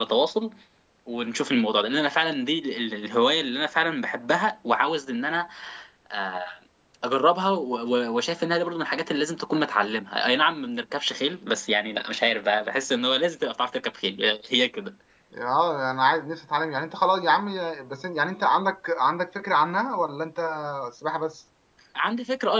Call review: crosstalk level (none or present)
none